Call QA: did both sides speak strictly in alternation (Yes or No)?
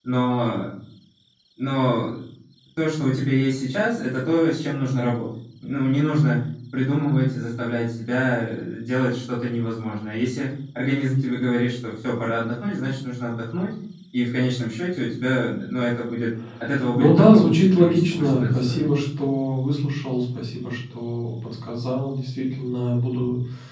No